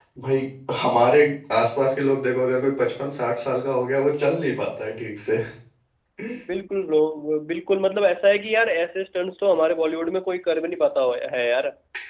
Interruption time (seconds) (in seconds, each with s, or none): none